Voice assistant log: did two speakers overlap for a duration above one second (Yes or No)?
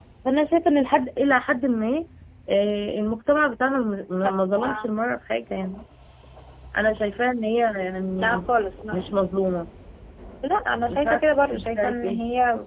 Yes